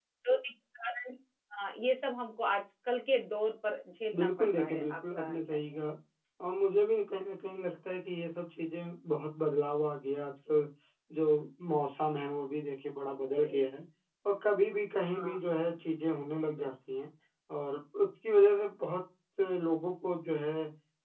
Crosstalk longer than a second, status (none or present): present